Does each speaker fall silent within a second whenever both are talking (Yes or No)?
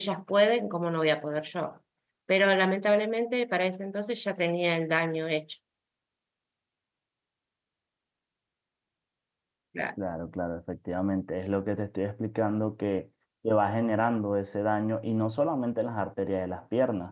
Yes